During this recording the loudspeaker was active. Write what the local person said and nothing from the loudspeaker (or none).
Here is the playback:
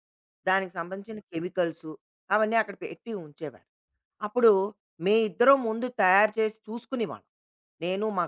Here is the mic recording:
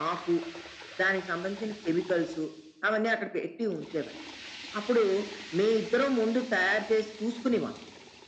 none